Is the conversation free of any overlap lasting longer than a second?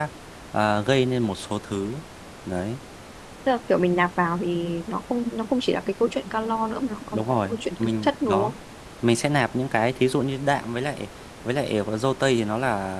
No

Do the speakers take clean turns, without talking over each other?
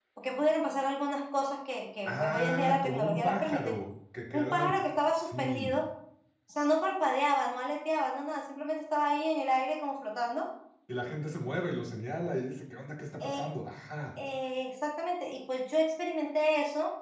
No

